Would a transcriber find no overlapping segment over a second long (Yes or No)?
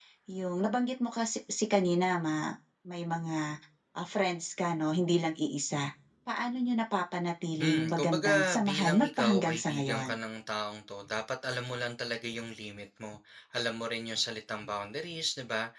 No